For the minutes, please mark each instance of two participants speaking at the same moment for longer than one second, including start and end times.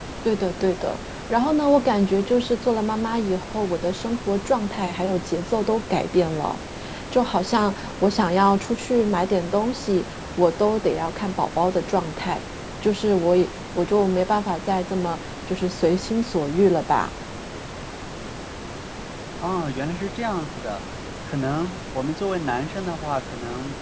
none

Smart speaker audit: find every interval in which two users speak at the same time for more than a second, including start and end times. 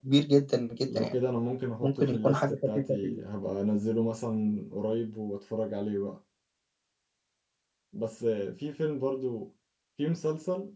1.8-3.2

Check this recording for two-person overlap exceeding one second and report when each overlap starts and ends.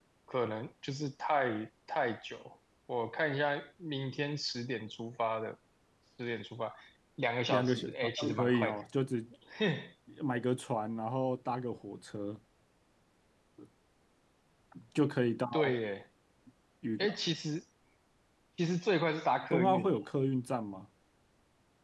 7.5-8.8

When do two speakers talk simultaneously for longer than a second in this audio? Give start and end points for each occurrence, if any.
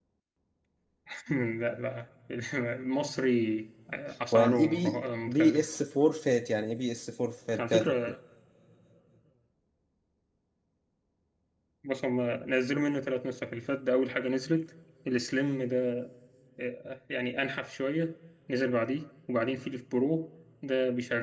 4.3-5.7

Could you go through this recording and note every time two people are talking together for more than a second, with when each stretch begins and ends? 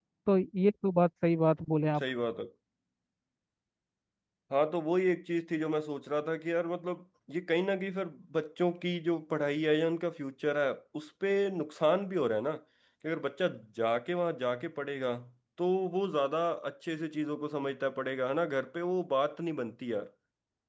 none

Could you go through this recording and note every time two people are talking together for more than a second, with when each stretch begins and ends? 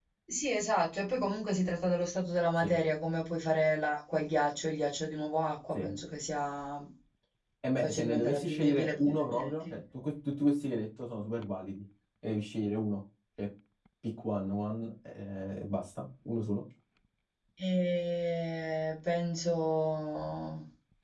7.8-9.8

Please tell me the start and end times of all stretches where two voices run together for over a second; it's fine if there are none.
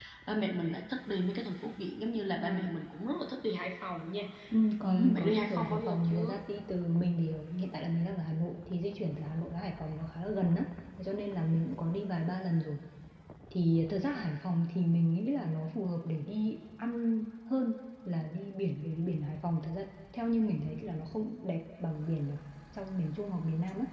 4.8-6.3

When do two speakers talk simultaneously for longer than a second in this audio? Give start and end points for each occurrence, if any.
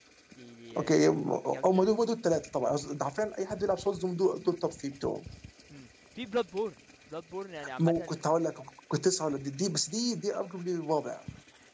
none

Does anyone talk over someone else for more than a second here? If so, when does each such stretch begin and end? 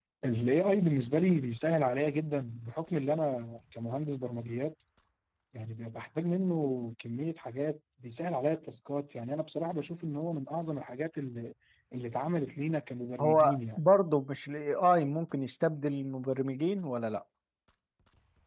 none

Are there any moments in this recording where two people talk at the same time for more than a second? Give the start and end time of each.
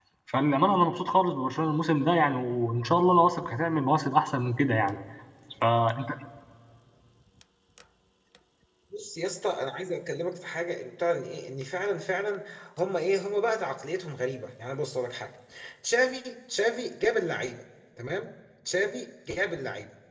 none

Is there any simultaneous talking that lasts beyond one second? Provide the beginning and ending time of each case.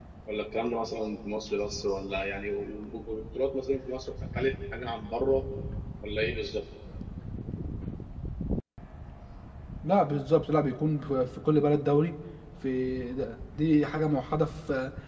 none

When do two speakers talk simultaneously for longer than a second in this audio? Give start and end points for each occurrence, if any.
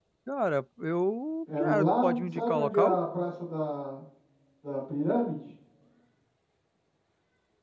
1.6-3.0

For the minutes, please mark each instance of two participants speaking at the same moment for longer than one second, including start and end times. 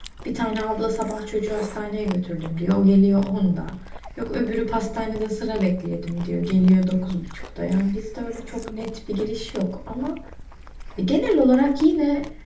none

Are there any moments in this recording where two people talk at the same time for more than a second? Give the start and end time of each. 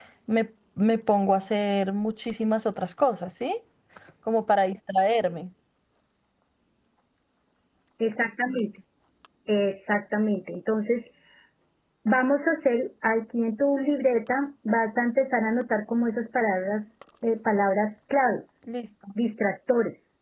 none

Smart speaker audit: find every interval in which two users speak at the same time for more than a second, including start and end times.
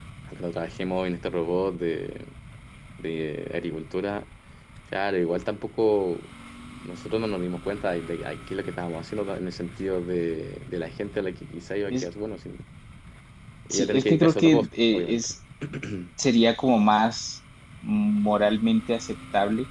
13.7-15.3

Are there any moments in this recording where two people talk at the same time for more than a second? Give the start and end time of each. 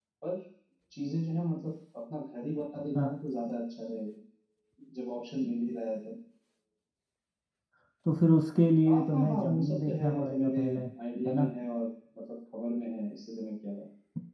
8.9-10.6

